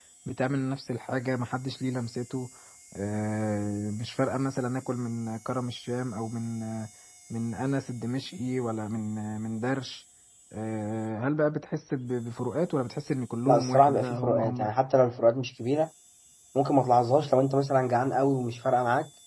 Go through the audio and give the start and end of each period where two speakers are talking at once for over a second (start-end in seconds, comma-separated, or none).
13.5-14.7